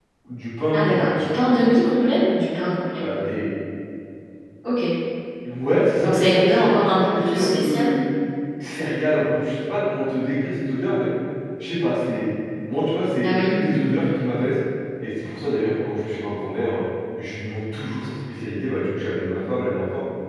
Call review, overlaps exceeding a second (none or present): present